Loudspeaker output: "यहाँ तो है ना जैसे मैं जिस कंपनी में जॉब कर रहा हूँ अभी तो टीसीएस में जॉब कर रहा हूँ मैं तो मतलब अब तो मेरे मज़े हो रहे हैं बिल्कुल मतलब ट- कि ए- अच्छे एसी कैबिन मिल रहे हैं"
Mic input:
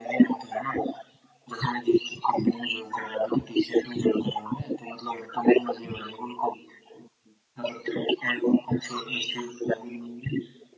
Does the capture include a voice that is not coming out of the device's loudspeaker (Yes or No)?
No